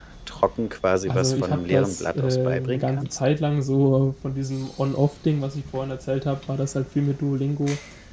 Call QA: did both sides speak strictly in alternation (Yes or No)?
No